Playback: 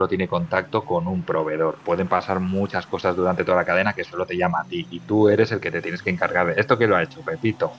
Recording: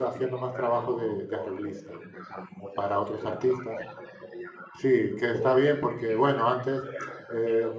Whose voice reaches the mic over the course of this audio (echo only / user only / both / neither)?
both